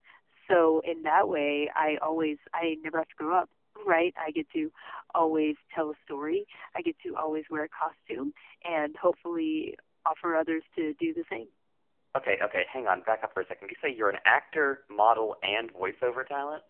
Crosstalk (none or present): none